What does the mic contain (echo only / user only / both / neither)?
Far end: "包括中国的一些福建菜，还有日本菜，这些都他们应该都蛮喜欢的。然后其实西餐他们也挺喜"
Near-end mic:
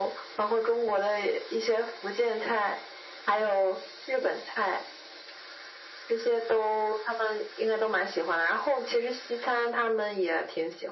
echo only